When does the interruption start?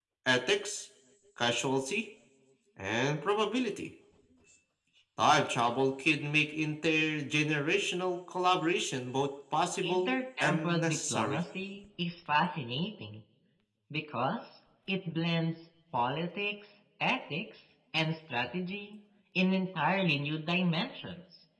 10 s

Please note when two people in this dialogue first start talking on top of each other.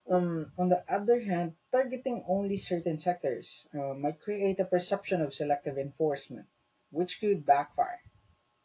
none

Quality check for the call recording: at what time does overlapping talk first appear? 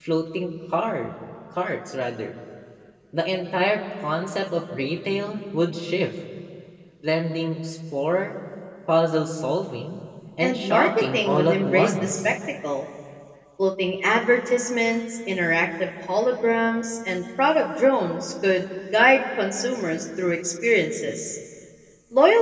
10 s

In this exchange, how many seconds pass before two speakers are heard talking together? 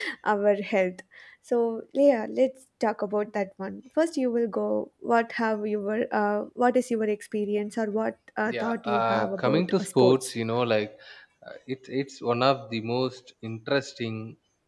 8 s

